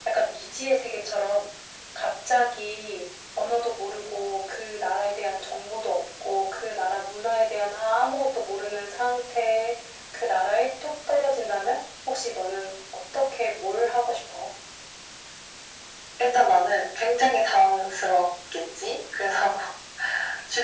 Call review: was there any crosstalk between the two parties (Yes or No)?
No